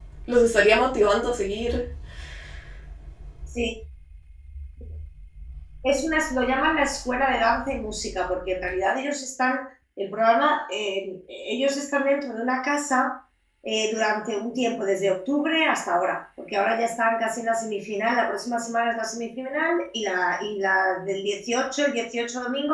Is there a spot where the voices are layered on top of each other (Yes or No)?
No